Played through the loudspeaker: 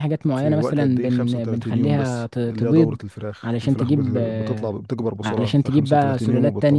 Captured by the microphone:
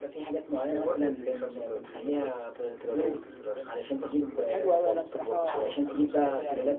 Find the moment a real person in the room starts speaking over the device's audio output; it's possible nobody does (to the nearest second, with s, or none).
3 s